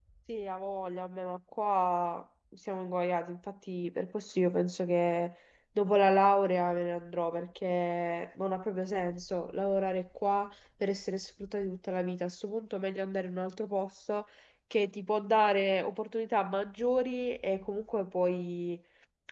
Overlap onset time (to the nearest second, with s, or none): none